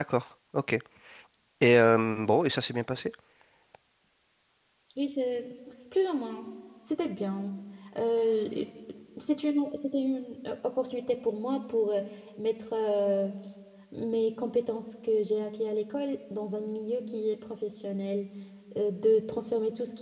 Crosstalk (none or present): none